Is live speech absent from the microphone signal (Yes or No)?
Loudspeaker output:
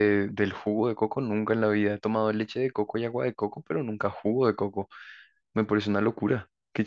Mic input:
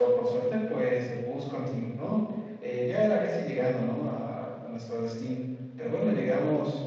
No